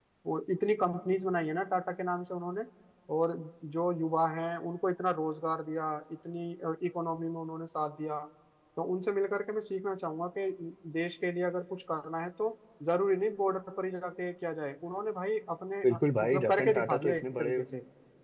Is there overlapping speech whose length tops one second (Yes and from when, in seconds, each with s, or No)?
Yes, from 15.8 s